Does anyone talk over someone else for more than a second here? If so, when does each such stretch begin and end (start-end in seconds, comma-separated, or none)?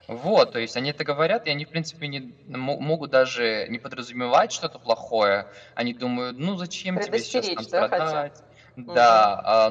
7.0-8.2